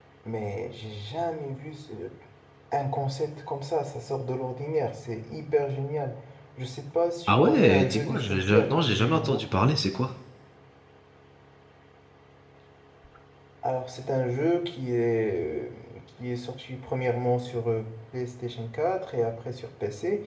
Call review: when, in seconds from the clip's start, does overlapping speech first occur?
7.3 s

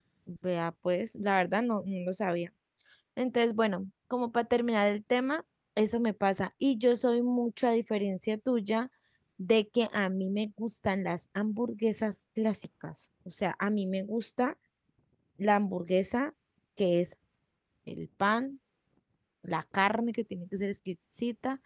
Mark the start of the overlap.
none

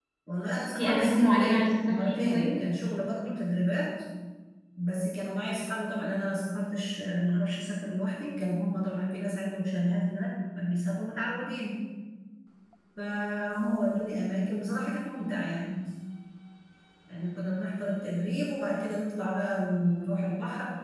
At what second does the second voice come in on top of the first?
0.8 s

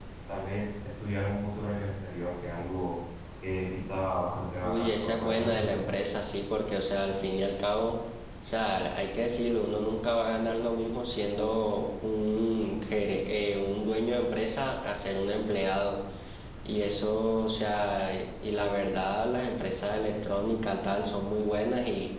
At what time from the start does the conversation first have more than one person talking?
4.6 s

